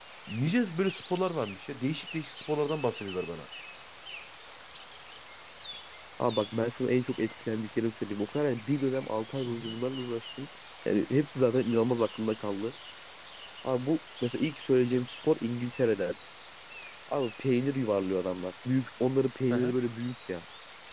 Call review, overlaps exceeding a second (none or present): none